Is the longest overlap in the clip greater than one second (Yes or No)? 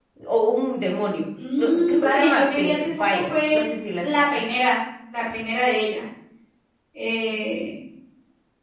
Yes